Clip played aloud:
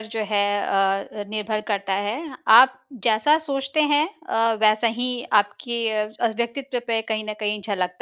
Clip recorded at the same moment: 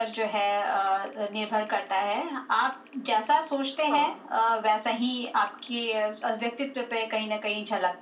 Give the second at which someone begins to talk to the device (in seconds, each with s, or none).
3.7 s